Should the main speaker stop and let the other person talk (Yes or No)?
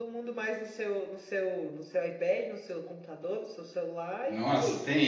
Yes